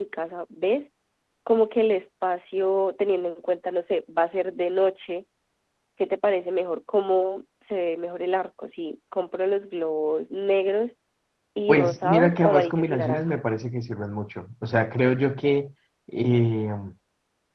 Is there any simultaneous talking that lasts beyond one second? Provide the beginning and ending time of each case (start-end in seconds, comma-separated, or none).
11.7-13.4